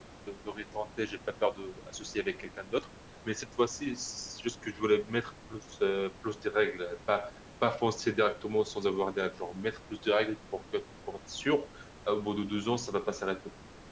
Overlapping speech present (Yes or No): No